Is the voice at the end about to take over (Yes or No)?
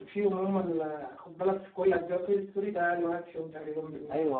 Yes